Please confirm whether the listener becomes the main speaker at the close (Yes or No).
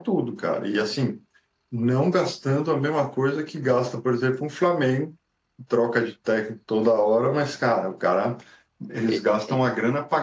No